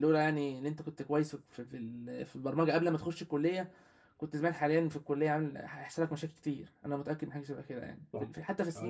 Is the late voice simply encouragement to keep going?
No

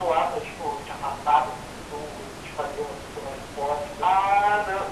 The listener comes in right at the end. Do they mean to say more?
Yes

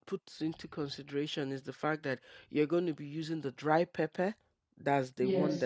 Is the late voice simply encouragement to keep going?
Yes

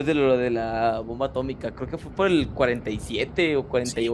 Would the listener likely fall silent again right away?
No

